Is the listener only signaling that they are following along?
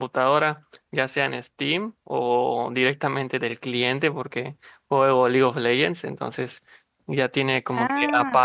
Yes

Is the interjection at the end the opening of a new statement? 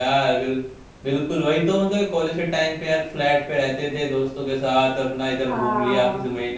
No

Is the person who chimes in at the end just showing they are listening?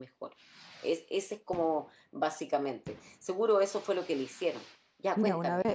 No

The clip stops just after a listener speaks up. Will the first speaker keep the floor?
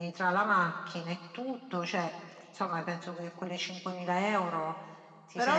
No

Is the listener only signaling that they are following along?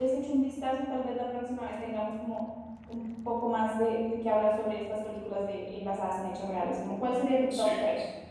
No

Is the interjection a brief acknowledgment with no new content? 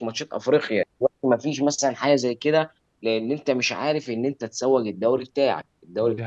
Yes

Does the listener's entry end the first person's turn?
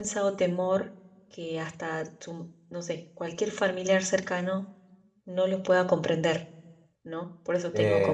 No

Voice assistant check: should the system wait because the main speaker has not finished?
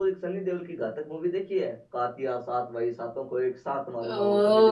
No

